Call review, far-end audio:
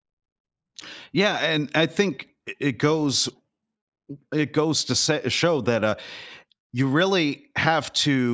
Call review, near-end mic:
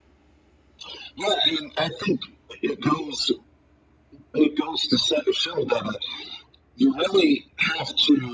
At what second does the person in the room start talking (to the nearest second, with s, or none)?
none